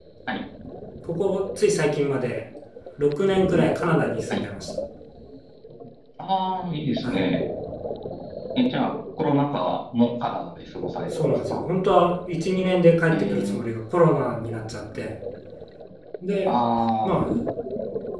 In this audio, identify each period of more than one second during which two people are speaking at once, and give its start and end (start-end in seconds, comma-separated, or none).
none